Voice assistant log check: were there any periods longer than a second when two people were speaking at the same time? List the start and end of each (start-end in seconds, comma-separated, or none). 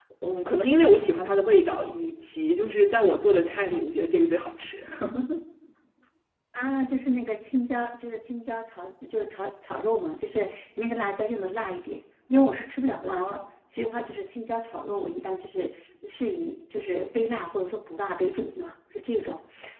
none